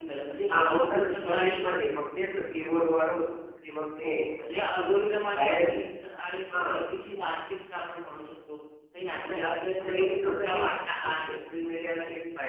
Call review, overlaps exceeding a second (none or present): present